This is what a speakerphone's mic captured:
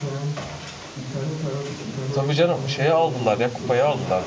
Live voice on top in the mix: Yes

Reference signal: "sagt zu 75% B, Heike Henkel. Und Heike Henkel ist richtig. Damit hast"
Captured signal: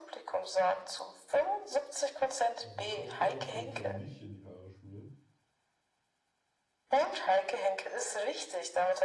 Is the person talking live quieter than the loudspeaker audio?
Yes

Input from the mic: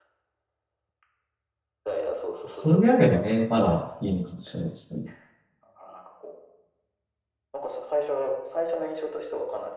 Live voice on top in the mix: Yes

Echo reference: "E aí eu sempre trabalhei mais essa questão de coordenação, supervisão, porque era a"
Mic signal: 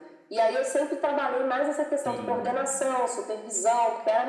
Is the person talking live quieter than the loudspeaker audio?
Yes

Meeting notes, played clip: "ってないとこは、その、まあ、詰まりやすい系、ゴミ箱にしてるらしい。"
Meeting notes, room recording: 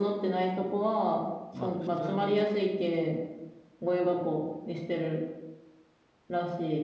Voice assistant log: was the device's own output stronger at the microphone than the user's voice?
Yes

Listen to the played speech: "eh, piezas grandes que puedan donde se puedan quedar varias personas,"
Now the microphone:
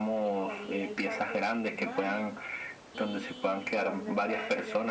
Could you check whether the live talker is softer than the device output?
Yes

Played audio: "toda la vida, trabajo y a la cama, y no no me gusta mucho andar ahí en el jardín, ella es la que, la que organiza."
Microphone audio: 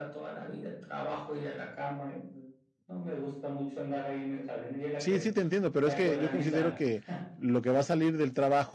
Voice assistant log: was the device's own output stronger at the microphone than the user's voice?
No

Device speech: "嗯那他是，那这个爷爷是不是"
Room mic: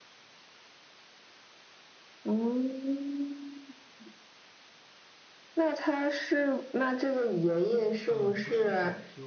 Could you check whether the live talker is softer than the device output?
Yes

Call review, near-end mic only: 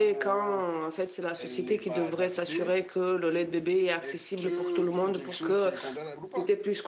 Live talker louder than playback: Yes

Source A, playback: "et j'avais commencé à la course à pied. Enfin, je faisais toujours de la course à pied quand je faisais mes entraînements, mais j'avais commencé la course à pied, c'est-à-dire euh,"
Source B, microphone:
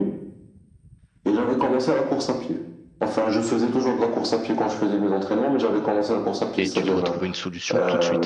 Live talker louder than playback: No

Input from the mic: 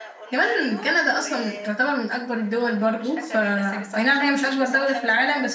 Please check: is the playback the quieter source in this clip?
Yes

